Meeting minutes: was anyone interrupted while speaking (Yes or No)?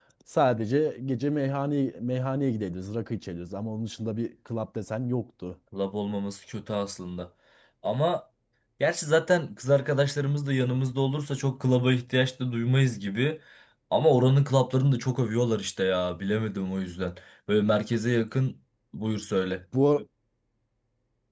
No